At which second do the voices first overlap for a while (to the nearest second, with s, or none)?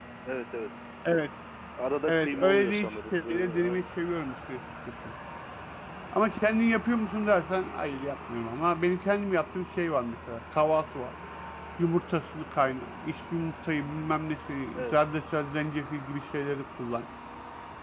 2 s